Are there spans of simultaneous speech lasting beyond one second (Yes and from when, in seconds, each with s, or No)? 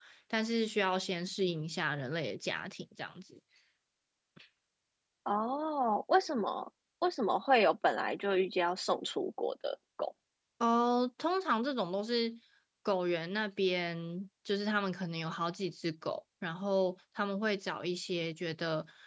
No